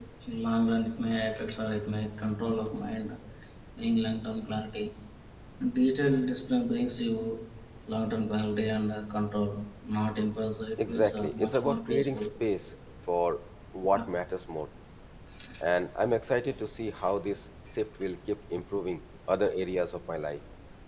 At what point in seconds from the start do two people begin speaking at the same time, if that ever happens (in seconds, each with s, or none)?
10.8 s